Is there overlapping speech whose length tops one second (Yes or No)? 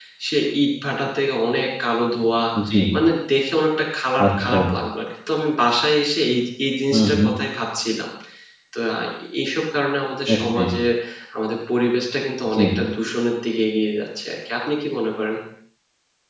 No